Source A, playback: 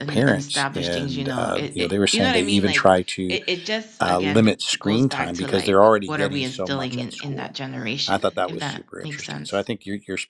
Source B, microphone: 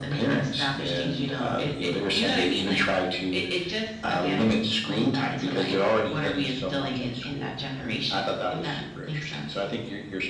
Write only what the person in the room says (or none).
none